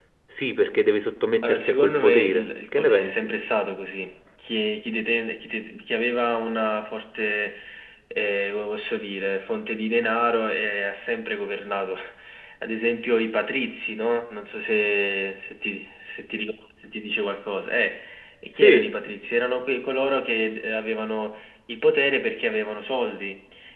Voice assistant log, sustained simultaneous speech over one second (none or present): present